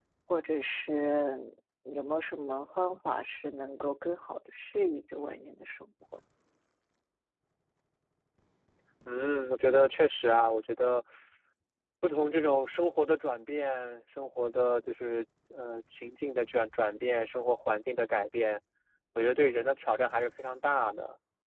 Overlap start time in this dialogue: none

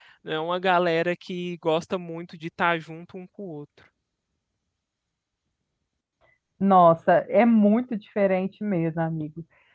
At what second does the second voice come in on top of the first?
none

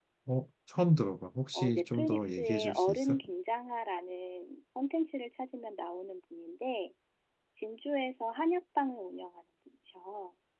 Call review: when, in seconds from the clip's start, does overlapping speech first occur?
1.6 s

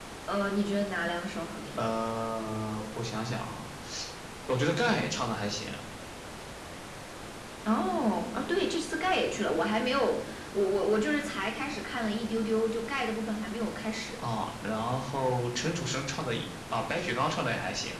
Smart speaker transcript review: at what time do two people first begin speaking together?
none

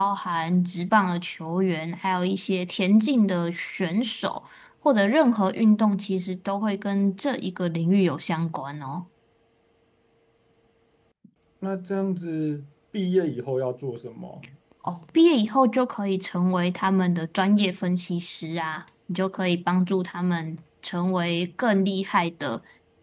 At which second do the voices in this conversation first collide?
none

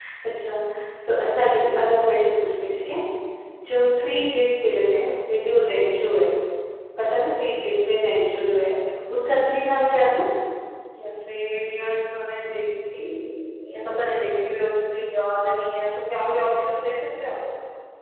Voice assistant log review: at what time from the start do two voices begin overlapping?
none

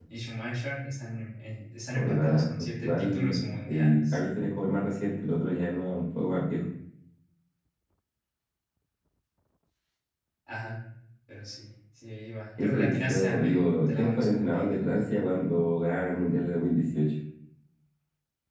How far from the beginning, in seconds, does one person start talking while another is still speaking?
1.9 s

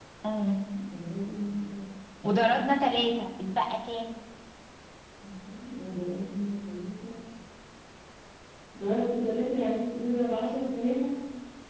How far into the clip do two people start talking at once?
none

